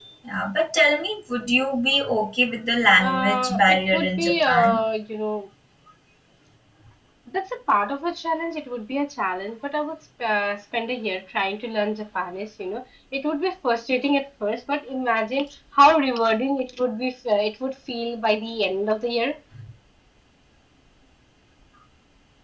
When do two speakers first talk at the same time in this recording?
3 s

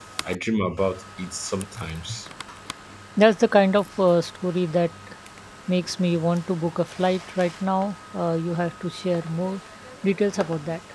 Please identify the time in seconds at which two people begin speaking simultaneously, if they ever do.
none

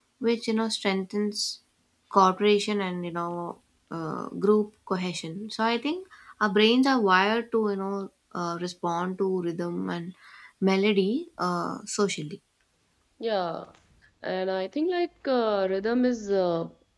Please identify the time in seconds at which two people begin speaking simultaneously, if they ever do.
none

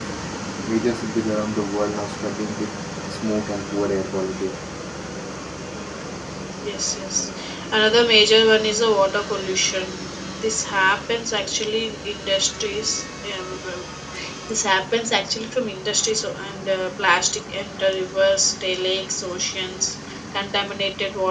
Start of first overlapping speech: none

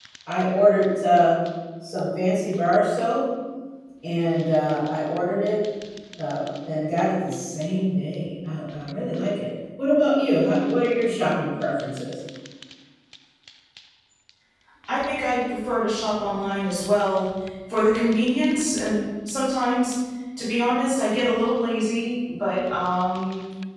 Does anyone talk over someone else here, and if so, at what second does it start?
none

